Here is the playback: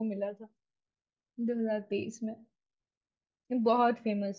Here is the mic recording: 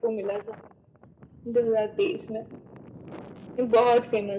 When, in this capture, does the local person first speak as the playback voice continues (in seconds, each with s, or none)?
none